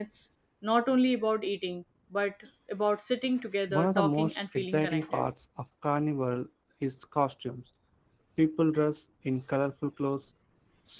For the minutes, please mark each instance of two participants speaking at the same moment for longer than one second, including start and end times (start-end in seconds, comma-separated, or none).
3.7-5.2